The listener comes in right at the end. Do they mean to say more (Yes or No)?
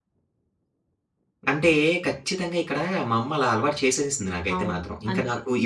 Yes